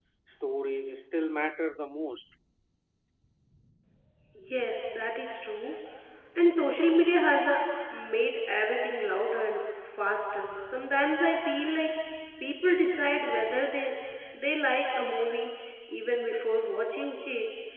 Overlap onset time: none

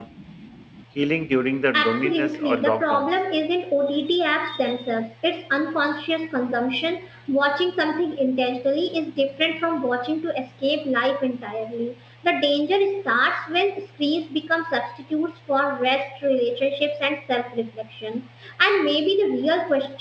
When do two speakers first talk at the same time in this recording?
1.7 s

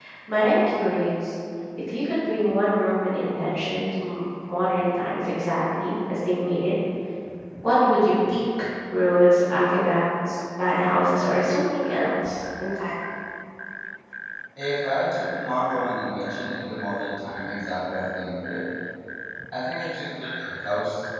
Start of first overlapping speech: none

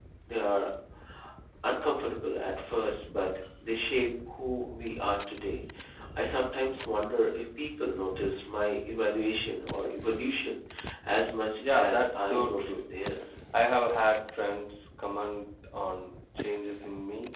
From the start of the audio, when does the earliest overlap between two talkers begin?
11.6 s

